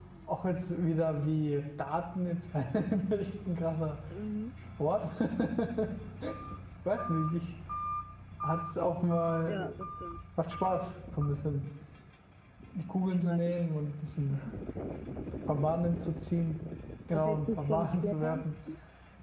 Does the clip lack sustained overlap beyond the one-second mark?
No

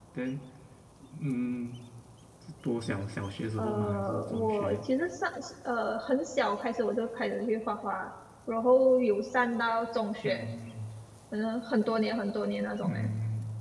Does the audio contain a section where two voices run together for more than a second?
Yes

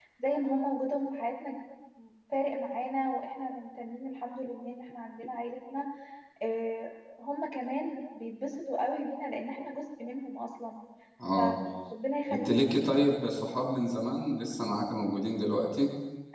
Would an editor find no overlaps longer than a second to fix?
Yes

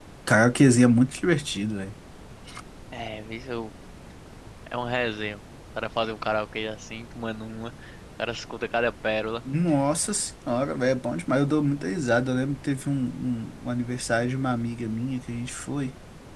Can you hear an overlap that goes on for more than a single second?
No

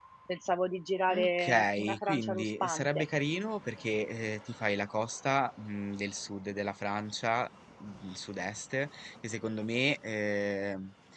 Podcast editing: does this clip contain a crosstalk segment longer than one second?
Yes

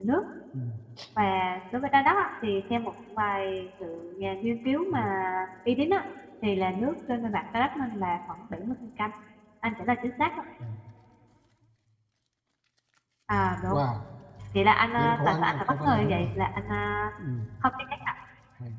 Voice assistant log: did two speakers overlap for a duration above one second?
Yes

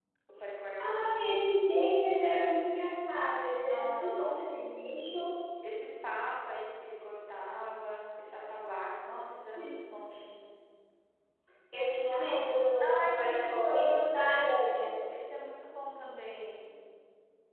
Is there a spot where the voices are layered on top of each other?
Yes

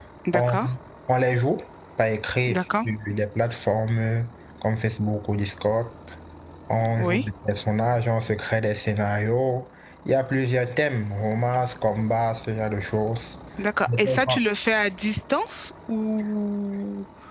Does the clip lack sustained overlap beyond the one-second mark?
Yes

